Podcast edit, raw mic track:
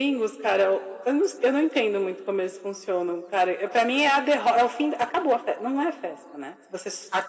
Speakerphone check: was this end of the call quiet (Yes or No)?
Yes